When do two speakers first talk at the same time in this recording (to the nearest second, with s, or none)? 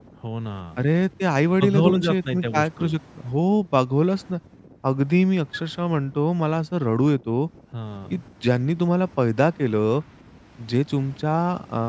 2 s